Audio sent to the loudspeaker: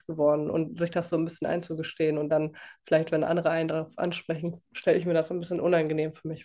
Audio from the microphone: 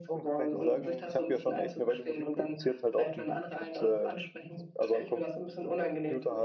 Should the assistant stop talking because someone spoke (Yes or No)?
Yes